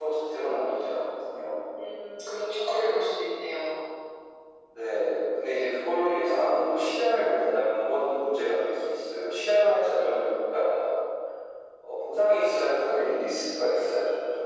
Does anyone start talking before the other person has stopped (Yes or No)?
No